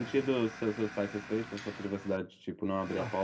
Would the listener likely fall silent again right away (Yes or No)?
No